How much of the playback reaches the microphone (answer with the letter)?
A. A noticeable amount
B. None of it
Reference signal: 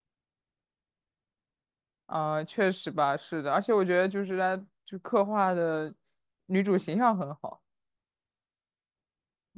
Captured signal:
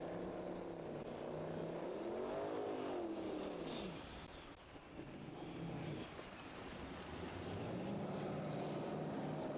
B